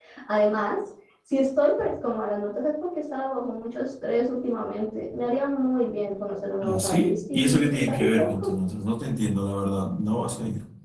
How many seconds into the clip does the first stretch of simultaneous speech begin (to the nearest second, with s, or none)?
7 s